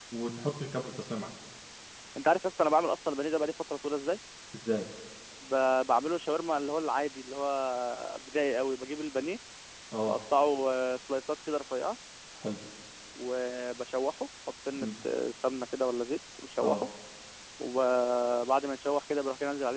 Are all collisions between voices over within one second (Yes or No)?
Yes